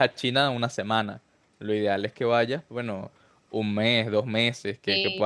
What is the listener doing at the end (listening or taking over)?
listening